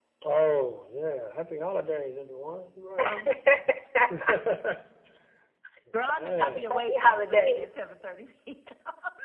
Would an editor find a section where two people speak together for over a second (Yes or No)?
Yes